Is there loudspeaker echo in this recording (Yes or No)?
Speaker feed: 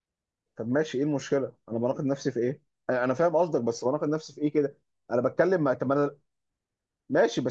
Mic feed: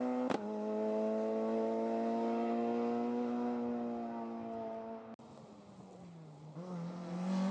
No